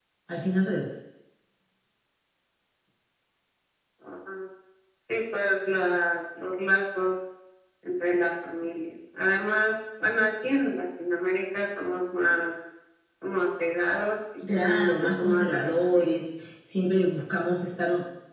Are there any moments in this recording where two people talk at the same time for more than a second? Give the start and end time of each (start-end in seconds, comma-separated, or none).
14.5-16.2